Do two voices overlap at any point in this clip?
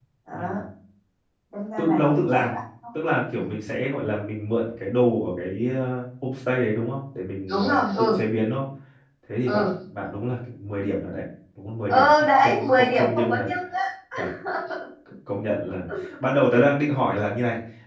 Yes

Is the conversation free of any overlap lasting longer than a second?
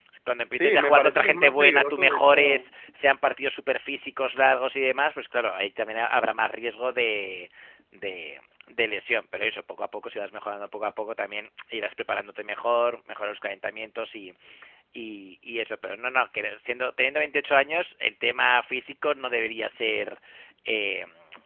No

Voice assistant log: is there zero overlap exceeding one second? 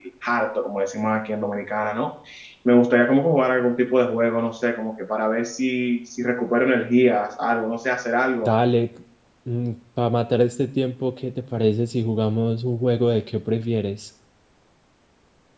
Yes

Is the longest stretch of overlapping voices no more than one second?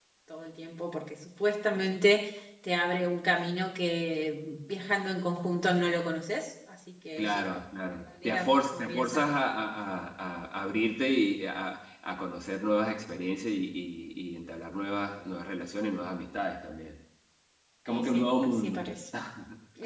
No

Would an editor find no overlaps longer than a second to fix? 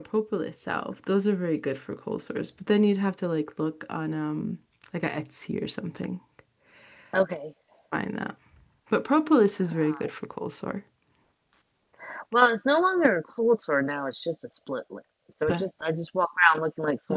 Yes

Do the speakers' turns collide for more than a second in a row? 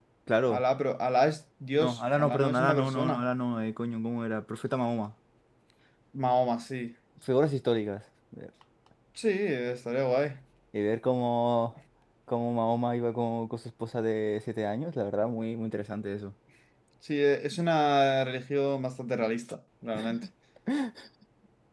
Yes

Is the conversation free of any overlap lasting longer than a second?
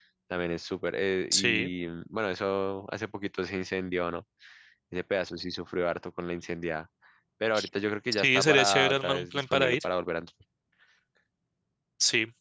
No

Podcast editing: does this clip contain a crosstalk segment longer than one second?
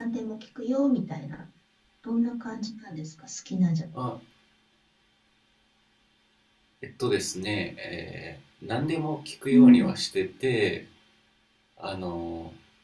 No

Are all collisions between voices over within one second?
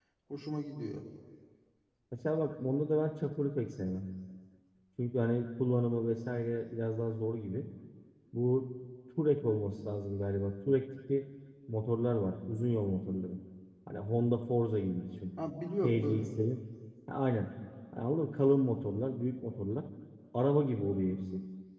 Yes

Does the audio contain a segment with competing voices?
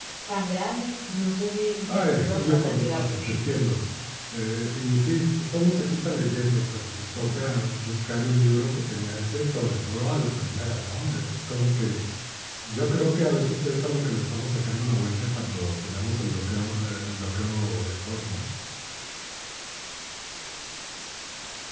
Yes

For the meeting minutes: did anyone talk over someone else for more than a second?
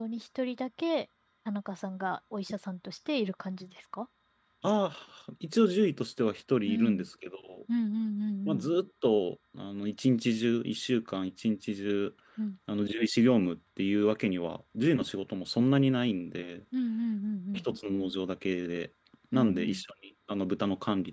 No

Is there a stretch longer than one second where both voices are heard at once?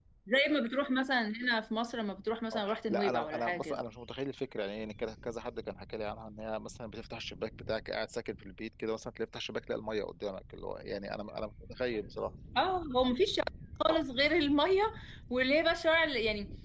Yes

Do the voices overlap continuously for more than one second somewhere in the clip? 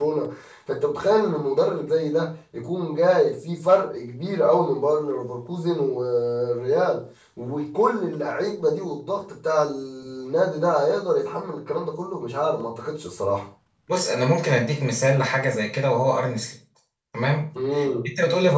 No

